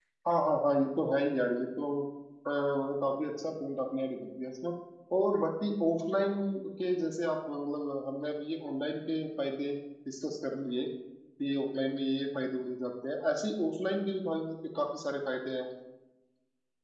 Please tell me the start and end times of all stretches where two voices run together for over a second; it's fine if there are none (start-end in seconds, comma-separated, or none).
none